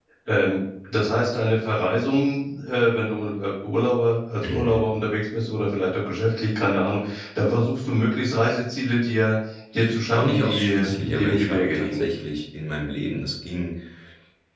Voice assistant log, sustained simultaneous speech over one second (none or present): present